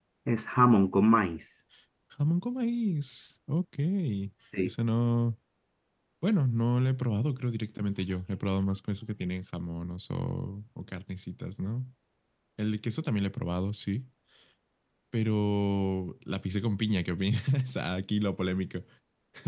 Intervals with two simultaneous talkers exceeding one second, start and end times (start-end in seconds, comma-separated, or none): none